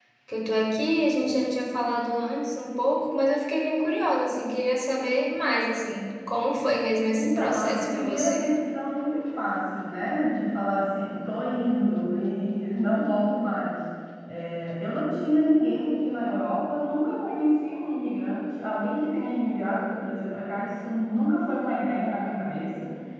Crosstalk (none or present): present